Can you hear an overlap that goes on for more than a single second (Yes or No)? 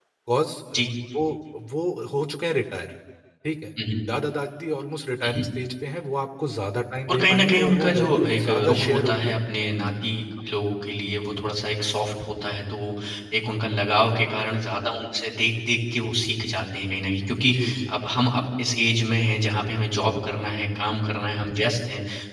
Yes